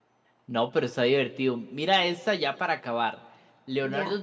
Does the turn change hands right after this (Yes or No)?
No